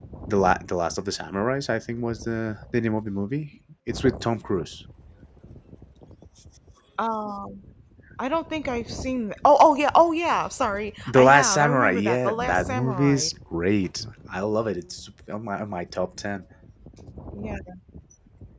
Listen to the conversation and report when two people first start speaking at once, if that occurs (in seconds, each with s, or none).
11.1 s